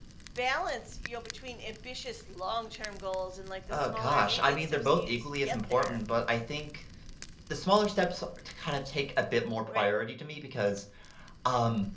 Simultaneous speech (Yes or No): Yes